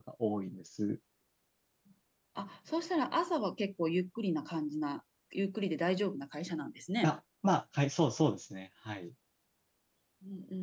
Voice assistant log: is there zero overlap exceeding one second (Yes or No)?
Yes